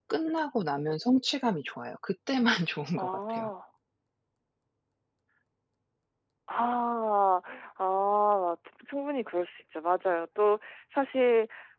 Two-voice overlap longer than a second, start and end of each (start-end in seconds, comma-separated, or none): none